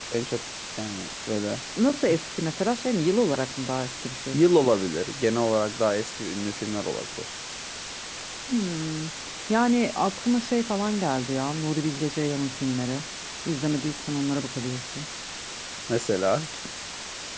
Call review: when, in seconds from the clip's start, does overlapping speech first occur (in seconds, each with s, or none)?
none